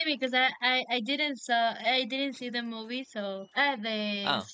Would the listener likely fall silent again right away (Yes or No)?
Yes